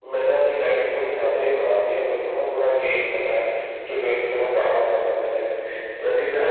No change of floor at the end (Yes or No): Yes